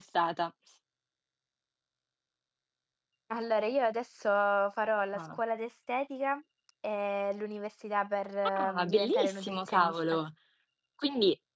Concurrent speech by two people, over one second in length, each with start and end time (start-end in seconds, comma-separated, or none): 8.6-9.9